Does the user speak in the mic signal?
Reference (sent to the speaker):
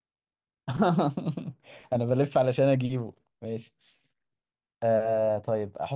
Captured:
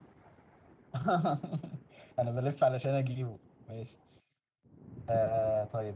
No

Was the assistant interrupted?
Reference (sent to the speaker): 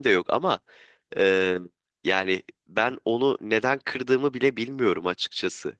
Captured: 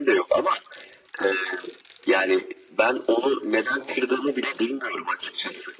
No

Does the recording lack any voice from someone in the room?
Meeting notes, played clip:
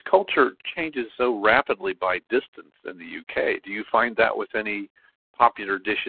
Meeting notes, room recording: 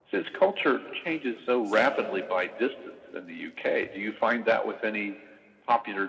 No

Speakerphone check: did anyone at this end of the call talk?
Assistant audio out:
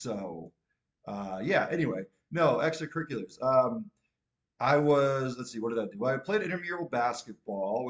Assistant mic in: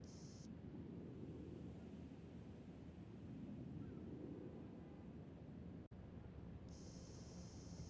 No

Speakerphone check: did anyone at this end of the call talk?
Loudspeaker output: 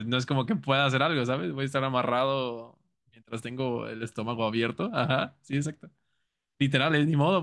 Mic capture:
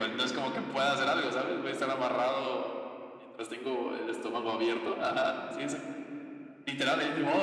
No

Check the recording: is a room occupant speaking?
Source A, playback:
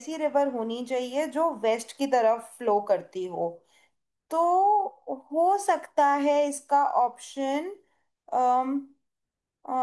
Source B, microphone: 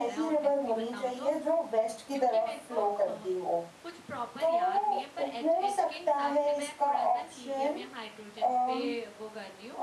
Yes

